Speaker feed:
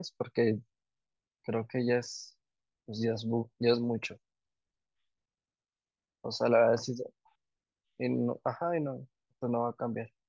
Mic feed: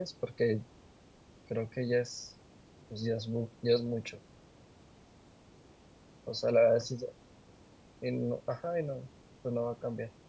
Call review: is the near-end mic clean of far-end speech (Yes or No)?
No